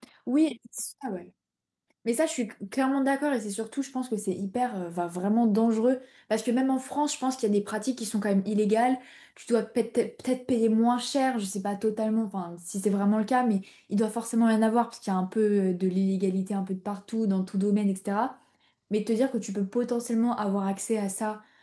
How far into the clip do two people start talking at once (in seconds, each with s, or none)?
none